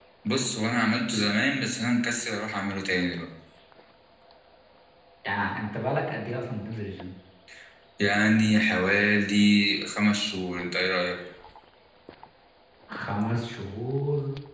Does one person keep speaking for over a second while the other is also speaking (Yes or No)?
No